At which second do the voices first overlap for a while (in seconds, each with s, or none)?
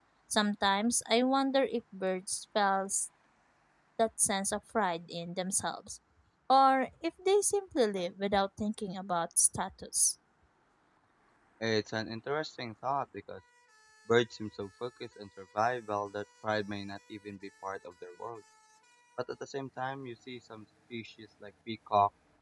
none